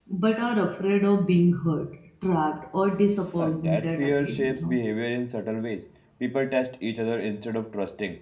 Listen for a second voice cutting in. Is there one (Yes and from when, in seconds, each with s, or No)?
Yes, from 3.4 s